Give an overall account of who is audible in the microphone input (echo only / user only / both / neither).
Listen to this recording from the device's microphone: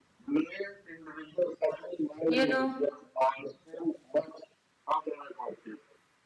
both